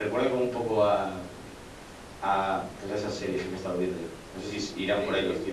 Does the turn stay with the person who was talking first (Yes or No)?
No